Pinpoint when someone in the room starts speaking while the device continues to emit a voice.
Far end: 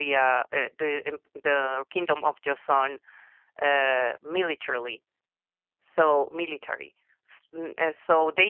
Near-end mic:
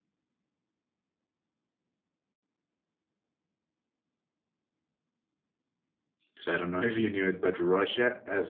6.3 s

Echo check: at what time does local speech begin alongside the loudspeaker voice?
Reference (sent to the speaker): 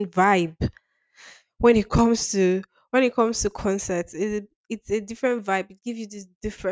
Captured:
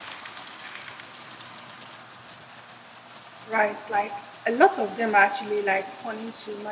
3.4 s

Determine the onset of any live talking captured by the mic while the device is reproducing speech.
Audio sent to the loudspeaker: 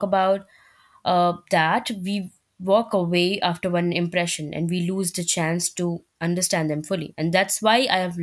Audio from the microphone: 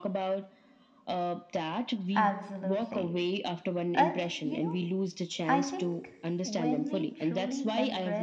2.1 s

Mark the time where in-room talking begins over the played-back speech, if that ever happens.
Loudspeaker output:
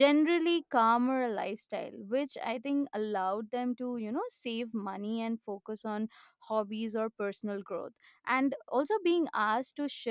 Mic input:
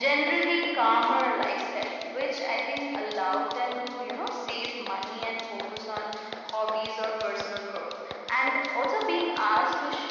none

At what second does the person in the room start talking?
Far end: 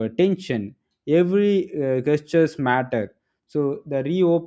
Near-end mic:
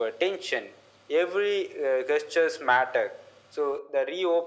none

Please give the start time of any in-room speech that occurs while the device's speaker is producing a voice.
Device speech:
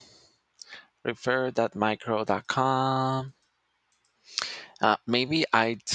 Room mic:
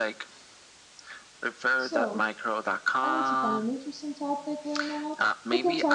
1.8 s

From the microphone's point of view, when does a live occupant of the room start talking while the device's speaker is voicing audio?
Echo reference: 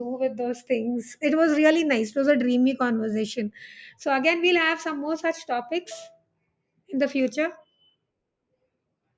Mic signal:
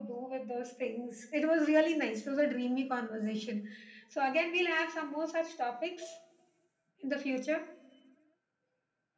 none

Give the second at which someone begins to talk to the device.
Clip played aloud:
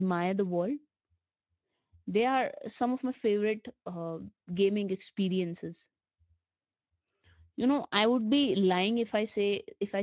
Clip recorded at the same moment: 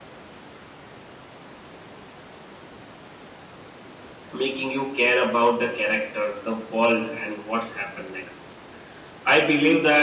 4.3 s

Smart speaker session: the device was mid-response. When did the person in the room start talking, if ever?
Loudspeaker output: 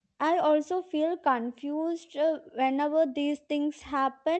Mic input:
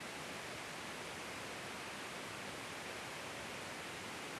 none

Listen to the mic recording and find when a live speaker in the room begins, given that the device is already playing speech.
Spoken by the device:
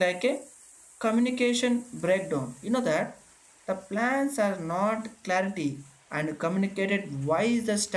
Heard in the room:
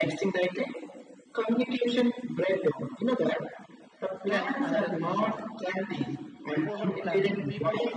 4.3 s

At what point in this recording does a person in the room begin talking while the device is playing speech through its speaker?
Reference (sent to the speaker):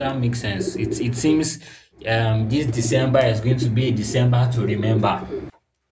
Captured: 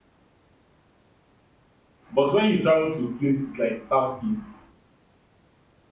2.1 s

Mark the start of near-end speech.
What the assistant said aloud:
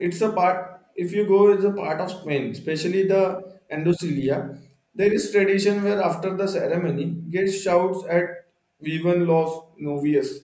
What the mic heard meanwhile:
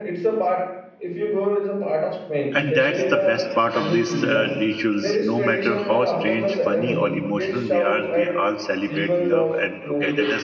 2.5 s

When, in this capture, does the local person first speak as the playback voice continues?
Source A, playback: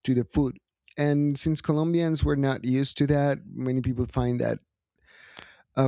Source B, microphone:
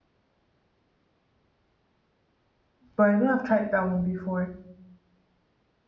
3.0 s

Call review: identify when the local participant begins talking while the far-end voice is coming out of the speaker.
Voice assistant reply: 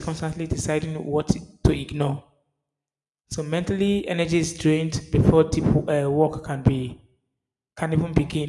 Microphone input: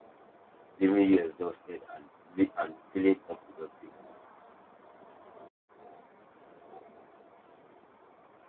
0.8 s

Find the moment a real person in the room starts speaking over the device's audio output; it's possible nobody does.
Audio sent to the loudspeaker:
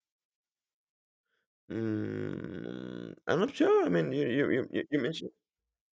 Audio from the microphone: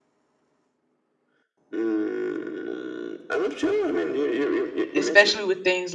4.9 s

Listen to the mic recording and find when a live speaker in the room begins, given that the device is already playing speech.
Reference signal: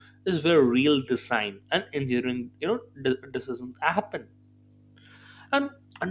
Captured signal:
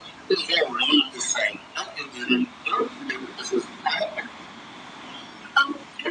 none

